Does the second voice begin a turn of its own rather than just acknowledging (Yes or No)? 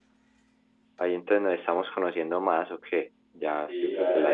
Yes